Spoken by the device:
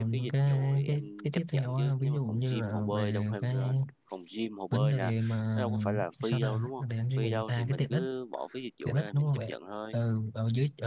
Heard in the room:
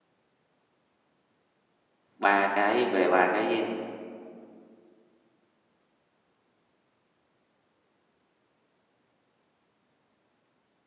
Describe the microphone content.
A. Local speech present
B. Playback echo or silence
A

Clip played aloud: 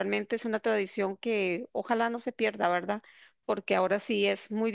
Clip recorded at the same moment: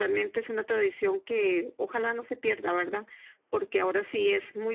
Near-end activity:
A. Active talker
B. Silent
B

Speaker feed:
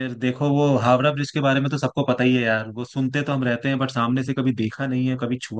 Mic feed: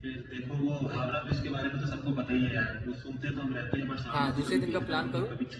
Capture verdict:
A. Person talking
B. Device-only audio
A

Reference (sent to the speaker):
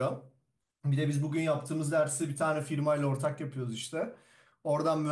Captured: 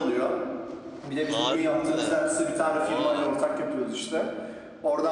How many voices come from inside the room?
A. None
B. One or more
B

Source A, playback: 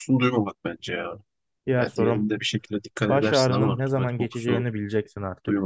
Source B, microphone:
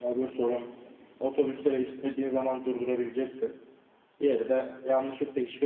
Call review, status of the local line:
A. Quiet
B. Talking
B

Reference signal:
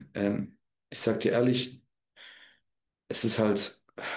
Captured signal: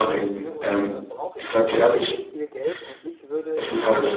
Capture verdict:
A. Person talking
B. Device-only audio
A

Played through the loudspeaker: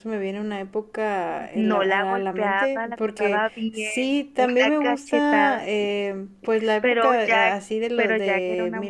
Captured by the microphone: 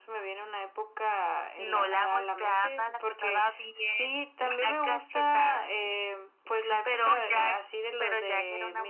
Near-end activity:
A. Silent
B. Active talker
A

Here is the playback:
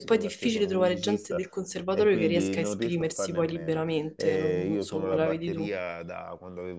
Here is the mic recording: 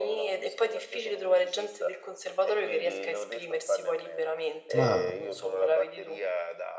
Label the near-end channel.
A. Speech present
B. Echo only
A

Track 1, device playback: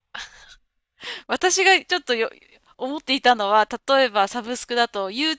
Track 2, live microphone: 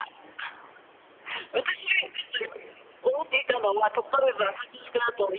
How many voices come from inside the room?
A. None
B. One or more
A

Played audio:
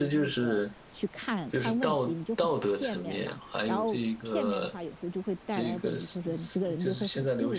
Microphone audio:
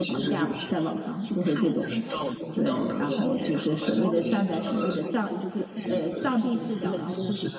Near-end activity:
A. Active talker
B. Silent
A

